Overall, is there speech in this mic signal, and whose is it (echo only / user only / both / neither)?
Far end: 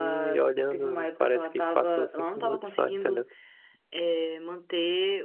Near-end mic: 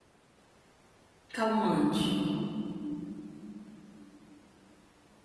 user only